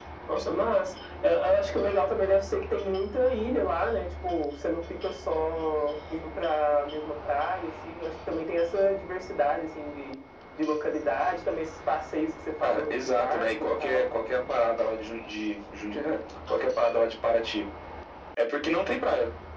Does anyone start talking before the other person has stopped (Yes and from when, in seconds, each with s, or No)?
Yes, from 12.6 s